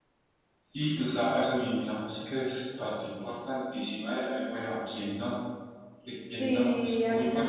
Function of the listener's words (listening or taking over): taking over